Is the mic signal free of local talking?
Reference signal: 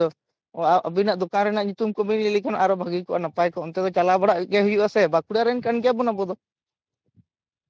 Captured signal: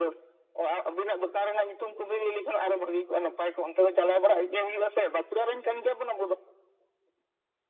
Yes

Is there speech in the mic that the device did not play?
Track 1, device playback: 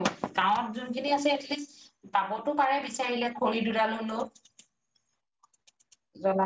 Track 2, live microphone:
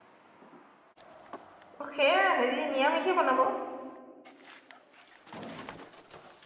Yes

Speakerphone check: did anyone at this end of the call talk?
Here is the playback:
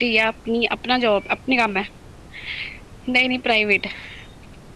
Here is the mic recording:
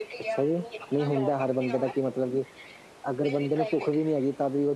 Yes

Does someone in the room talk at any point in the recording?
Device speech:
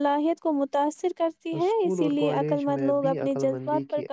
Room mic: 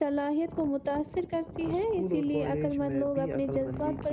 No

